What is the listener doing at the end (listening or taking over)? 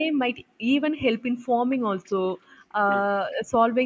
listening